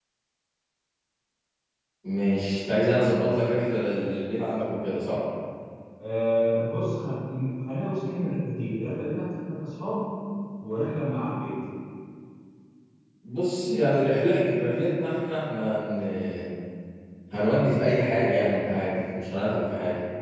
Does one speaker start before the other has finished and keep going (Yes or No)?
No